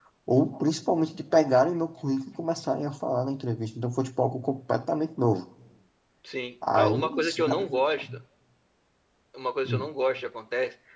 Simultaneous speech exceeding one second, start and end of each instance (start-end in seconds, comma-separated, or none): 6.7-8.0